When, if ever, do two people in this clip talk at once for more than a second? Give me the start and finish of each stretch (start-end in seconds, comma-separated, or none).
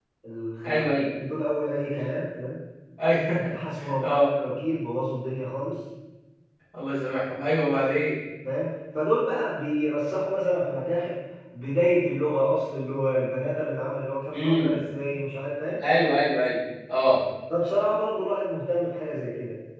none